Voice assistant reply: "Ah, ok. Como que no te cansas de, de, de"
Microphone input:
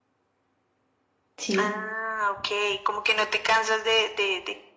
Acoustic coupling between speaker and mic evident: Yes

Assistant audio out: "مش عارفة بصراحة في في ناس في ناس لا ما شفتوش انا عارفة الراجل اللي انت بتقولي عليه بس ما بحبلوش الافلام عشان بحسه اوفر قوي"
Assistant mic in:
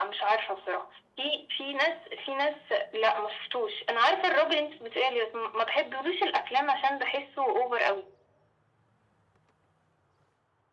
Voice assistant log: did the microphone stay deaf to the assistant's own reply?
No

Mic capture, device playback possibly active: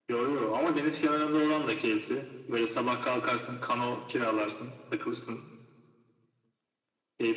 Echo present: Yes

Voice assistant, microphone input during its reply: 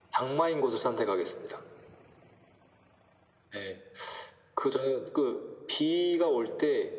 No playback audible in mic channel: No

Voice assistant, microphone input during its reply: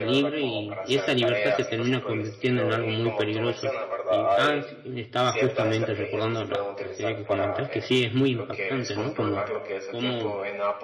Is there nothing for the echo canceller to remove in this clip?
No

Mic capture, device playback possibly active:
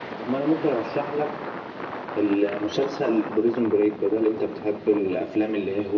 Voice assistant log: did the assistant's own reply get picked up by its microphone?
No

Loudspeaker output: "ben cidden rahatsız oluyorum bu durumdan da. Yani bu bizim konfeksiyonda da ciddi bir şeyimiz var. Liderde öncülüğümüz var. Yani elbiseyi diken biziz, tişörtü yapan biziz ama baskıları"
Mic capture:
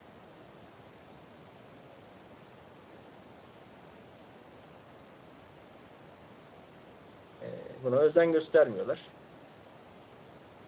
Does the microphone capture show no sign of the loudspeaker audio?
Yes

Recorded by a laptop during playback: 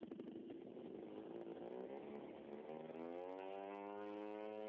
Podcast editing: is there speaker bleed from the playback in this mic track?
No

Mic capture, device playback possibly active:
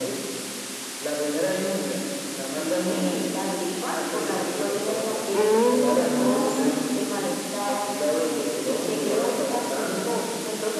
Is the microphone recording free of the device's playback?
No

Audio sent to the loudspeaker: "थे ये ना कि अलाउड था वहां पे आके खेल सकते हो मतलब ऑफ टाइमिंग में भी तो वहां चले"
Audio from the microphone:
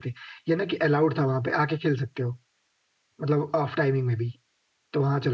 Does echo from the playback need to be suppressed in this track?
Yes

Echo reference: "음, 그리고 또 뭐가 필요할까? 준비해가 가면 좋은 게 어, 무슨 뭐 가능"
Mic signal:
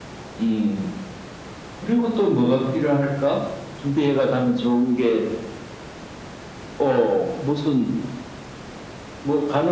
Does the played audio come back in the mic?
Yes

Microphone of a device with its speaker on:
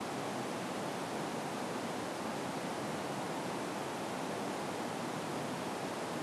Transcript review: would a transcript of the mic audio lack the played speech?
Yes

